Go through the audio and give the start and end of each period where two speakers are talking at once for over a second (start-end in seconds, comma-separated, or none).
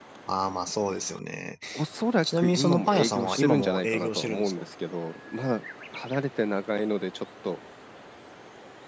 2.2-4.7